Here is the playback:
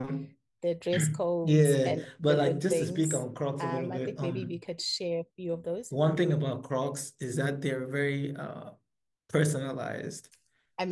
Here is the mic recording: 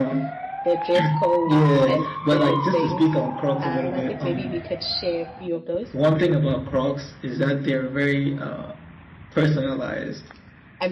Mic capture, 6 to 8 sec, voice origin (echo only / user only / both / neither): echo only